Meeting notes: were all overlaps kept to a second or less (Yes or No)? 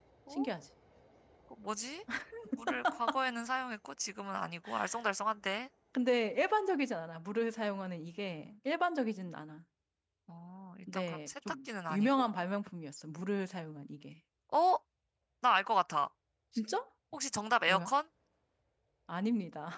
No